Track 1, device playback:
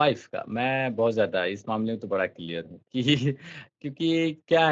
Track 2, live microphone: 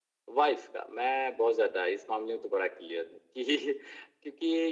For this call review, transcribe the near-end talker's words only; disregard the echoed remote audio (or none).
none